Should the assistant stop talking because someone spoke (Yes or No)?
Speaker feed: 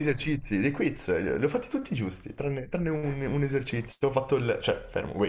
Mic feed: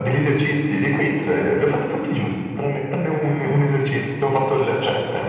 No